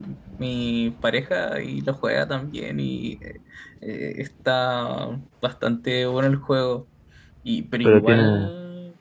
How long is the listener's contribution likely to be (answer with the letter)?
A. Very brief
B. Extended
A